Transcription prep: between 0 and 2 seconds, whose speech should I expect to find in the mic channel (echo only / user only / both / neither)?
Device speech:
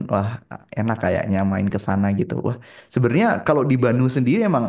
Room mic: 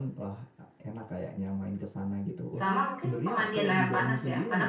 echo only